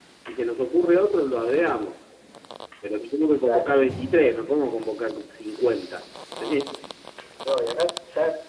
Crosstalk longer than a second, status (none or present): none